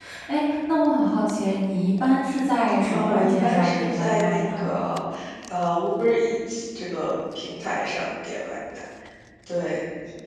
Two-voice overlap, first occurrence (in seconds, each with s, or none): 2.9 s